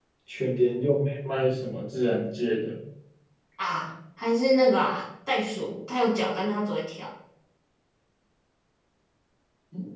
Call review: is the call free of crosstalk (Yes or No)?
Yes